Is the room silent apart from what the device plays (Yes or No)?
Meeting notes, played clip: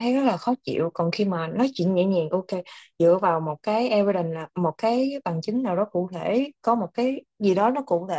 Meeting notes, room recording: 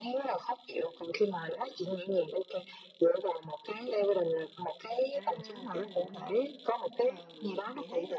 No